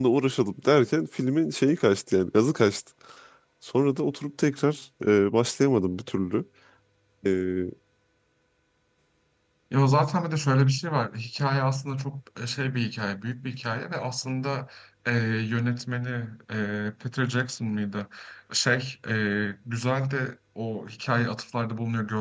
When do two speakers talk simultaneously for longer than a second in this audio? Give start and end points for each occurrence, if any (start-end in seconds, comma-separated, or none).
none